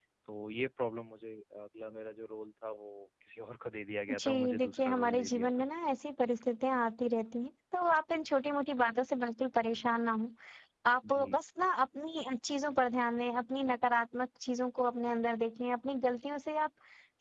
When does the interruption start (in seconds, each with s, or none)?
4.2 s